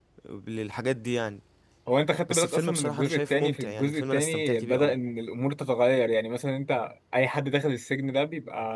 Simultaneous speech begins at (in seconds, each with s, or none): 2.3 s